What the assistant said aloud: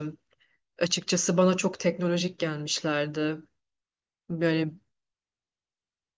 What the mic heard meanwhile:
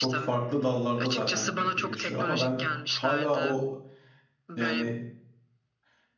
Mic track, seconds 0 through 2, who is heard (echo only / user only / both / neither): both